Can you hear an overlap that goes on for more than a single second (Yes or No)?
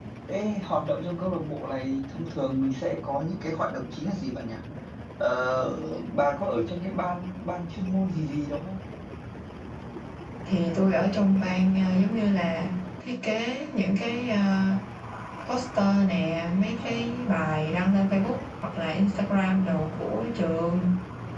No